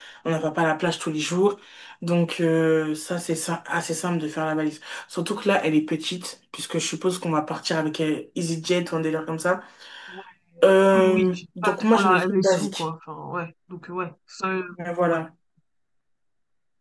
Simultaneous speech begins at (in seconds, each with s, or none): 10.9 s